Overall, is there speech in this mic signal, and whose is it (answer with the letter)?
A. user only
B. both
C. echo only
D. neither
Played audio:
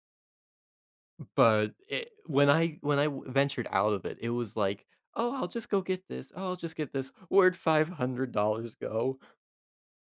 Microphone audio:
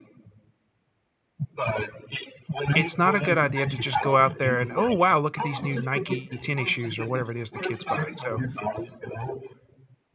B